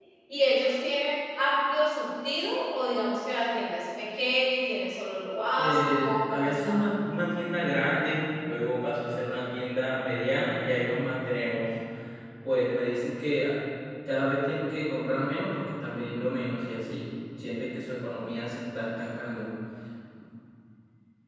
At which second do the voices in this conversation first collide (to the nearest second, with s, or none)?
6 s